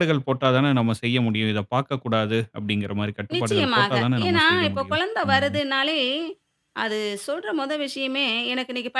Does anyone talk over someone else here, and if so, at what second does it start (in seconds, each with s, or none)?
3.3 s